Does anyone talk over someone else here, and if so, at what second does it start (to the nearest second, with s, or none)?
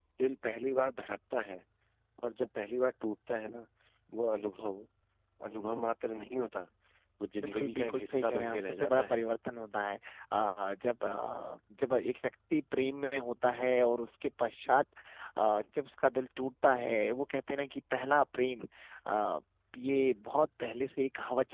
7 s